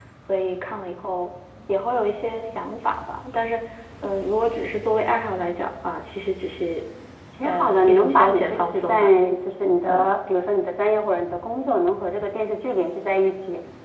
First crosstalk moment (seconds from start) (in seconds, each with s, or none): 7.4 s